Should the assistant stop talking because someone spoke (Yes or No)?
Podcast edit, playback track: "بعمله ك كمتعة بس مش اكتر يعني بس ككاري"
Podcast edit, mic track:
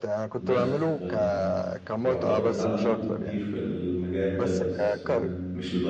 Yes